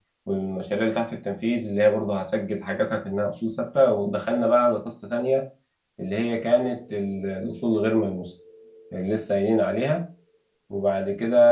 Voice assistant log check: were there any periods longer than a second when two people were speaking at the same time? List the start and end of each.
none

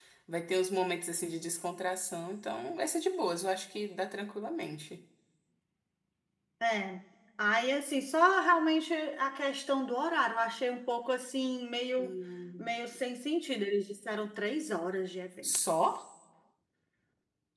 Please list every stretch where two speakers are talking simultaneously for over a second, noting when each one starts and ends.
none

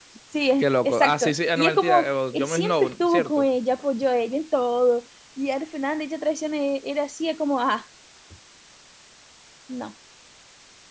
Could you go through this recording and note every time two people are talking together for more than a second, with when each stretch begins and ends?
0.6-3.4

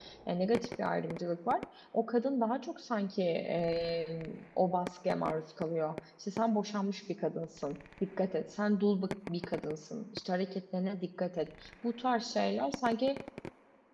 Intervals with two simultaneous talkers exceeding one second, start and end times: none

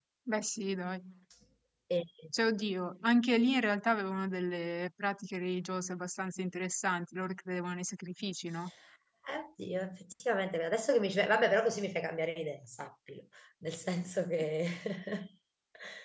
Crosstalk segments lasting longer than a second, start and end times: none

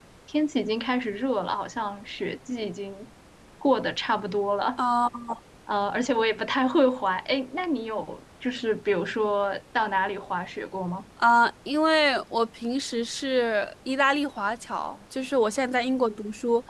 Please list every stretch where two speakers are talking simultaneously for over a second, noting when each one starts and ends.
none

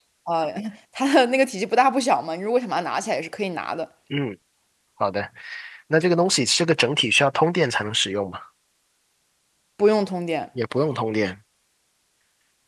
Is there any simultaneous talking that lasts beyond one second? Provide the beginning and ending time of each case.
none

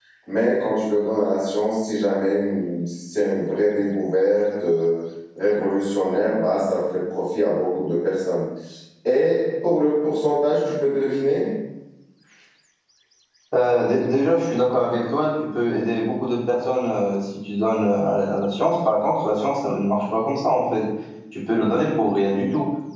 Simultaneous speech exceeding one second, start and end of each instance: none

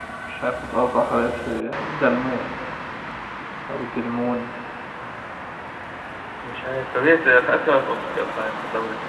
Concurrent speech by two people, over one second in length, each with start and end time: none

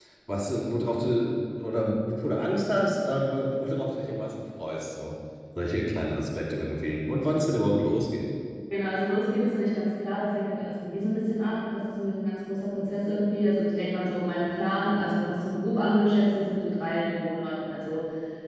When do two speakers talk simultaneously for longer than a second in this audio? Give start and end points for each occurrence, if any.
none

